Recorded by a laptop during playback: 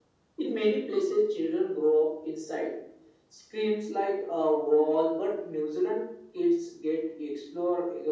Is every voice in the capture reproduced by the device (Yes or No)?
Yes